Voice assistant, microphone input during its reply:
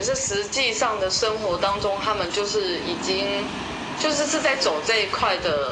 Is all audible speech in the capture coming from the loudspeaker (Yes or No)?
Yes